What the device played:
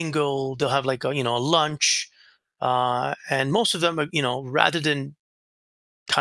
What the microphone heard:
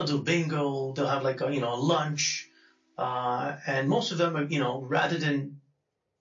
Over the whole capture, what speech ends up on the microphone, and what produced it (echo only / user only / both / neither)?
echo only